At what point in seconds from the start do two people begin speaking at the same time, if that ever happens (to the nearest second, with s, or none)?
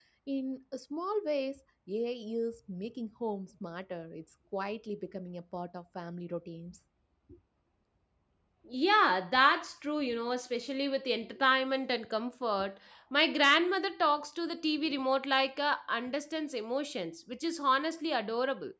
none